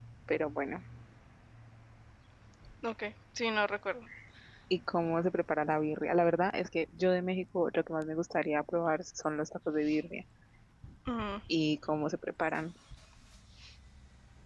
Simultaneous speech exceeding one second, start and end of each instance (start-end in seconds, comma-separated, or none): none